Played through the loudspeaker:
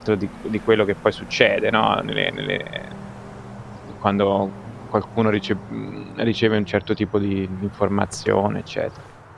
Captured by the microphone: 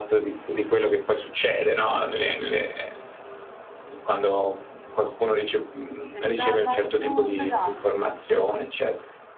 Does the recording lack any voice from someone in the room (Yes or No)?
No